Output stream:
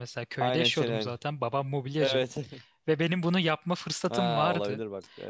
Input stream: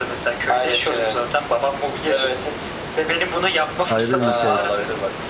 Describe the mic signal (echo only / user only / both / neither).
both